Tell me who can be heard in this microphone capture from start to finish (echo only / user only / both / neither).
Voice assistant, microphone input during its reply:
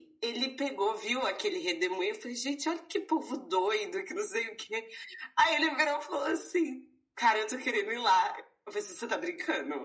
echo only